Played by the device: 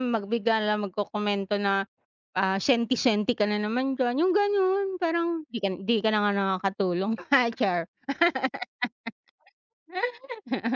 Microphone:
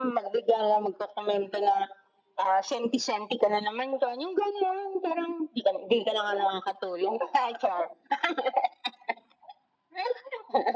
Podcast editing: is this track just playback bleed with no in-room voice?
Yes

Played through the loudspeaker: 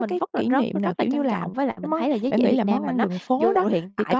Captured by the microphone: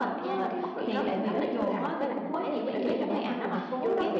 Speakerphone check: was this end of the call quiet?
No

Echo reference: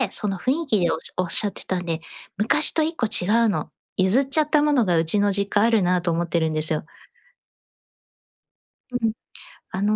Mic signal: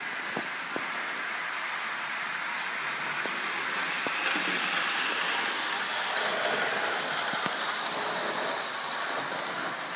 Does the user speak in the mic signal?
No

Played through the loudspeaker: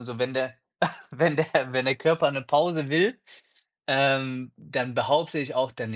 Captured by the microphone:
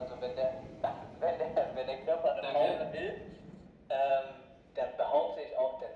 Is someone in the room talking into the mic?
Yes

